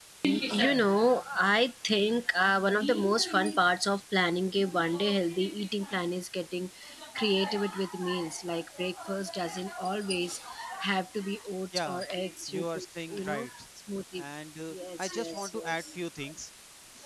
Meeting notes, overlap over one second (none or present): present